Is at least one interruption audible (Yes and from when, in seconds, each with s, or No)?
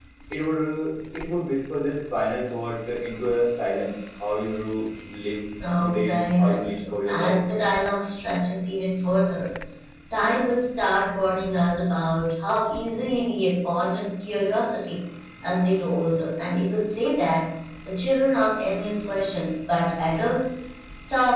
Yes, from 5.8 s